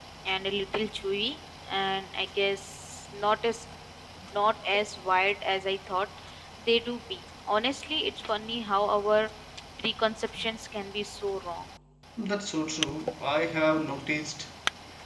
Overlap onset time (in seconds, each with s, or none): none